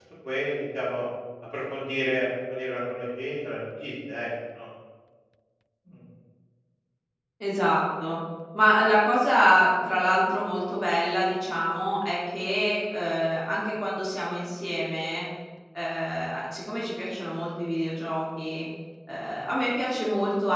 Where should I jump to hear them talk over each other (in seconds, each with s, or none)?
none